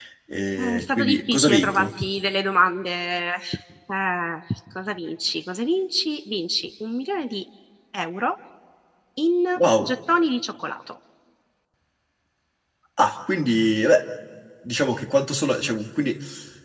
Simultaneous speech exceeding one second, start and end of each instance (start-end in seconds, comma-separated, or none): 0.6-1.9